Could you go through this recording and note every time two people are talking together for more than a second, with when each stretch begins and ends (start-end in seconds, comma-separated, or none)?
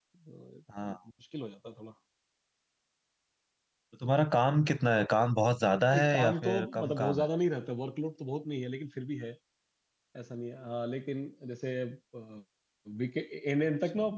6.0-7.3